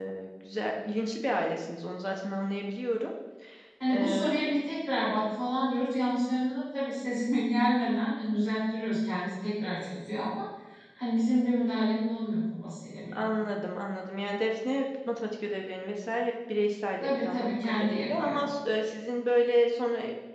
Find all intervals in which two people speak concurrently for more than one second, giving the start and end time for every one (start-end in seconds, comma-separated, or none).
17.0-18.4